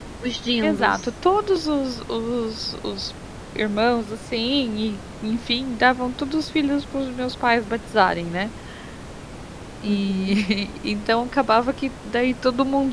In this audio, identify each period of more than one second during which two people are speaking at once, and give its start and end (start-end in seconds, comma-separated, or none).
none